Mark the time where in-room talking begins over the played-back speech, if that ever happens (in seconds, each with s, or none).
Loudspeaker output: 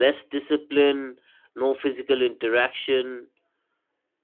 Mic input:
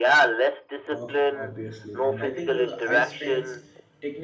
0.9 s